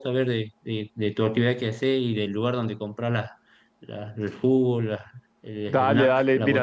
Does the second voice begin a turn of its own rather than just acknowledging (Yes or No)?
Yes